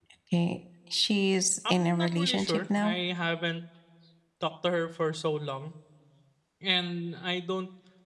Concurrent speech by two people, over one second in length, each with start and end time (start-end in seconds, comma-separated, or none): 1.7-3.0